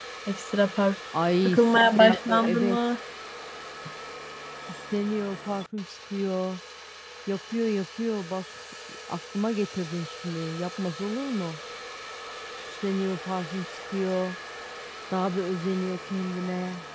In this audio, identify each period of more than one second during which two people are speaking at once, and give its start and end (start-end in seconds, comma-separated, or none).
1.4-2.8